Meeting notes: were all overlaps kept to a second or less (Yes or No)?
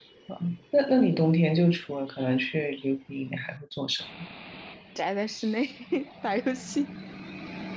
Yes